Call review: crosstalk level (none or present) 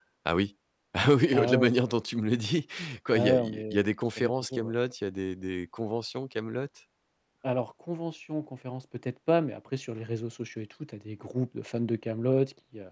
present